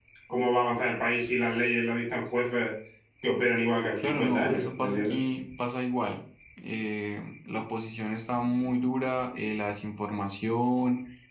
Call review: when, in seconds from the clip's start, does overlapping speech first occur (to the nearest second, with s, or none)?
4 s